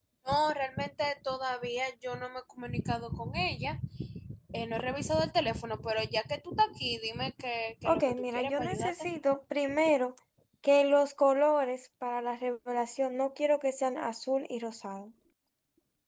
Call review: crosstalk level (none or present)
present